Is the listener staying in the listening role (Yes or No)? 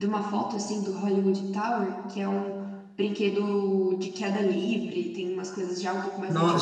No